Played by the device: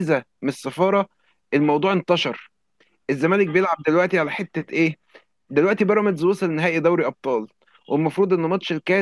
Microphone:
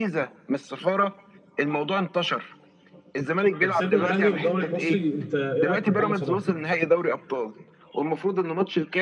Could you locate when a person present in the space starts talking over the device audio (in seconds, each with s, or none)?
3.6 s